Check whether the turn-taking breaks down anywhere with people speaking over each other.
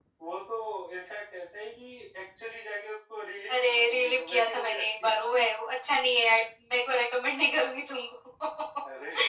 Yes, from 3.5 s

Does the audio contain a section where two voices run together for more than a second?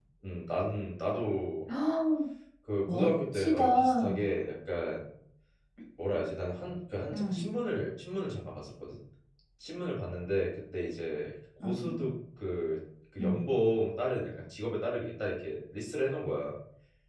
Yes, from 2.9 s

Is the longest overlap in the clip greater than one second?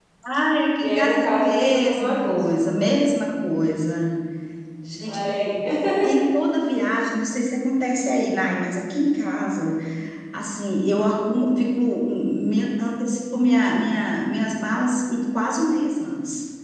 Yes, from 0.8 s

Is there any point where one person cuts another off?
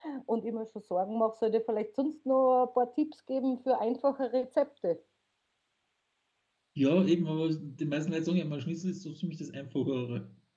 No

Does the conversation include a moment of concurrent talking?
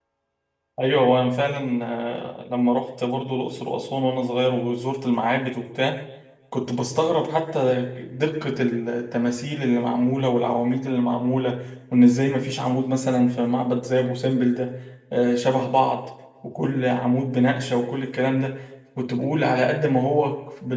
No

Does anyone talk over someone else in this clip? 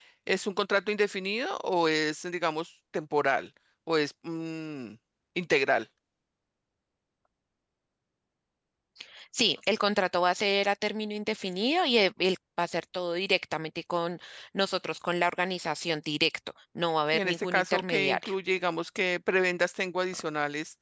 Yes, from 17.1 s

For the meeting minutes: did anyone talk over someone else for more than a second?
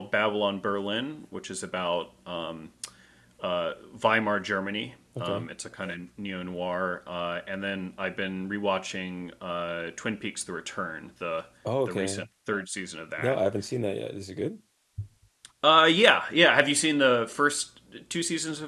No

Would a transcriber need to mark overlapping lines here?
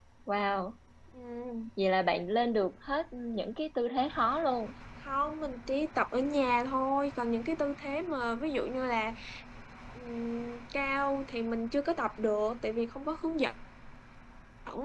No

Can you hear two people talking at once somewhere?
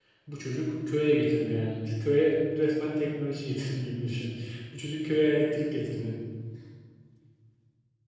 No

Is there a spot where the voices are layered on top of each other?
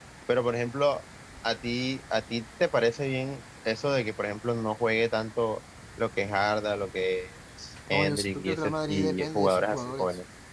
Yes, from 7.9 s

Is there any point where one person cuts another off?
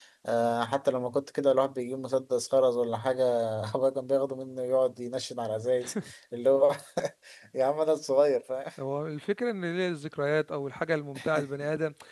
No

